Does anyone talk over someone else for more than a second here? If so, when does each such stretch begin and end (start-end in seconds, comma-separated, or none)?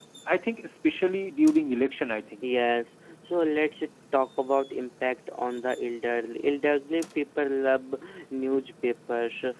none